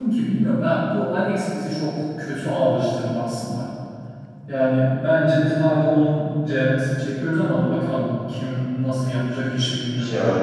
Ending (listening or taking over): taking over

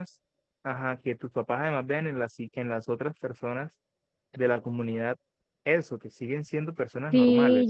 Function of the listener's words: taking over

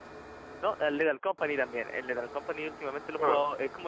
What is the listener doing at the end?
listening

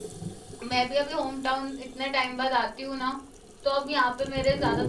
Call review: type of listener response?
listening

